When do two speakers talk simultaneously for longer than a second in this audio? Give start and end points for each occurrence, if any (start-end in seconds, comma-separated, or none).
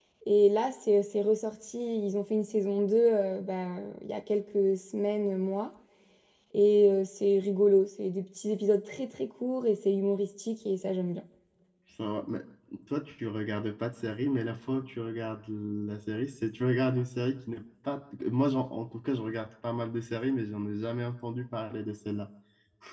none